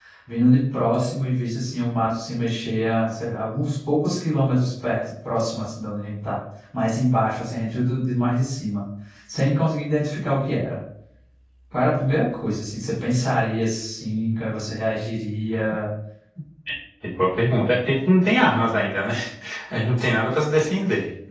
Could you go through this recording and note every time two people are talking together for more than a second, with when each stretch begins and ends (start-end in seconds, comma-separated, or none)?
none